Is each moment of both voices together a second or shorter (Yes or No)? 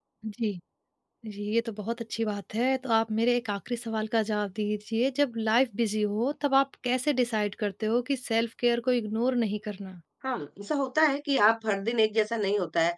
Yes